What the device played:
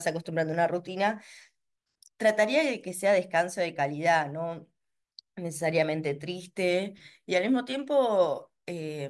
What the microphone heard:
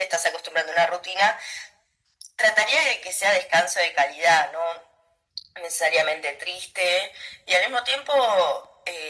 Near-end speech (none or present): none